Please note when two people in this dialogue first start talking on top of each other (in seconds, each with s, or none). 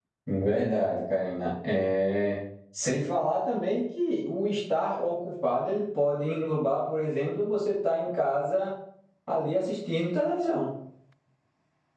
none